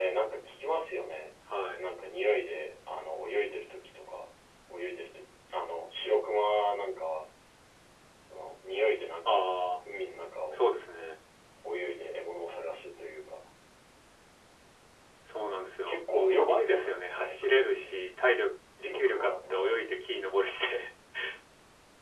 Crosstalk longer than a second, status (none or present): present